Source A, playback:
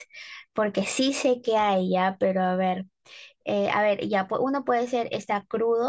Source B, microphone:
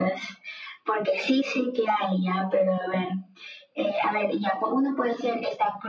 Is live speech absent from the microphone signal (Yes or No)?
Yes